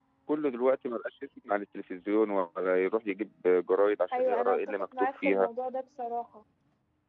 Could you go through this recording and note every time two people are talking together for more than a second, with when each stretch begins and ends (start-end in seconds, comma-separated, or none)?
4.1-5.5